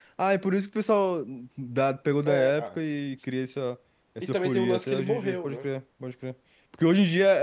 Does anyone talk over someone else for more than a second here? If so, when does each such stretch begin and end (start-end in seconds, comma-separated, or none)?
4.2-5.7